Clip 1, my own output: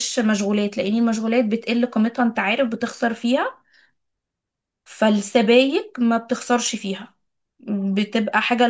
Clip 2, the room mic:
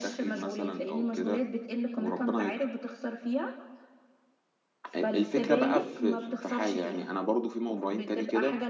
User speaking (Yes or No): Yes